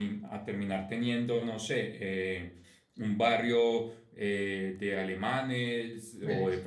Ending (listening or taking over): listening